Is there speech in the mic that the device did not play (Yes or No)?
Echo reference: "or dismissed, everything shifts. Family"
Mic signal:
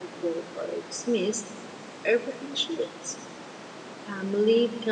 No